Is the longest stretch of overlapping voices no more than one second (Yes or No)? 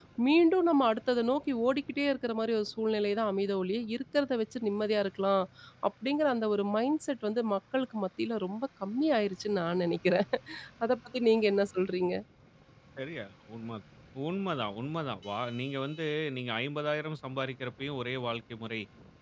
Yes